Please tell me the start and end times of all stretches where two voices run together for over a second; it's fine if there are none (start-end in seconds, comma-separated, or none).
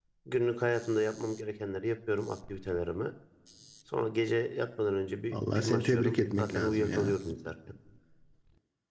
5.3-7.1